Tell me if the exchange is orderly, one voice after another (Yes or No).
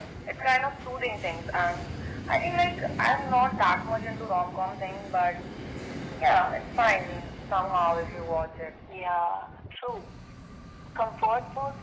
Yes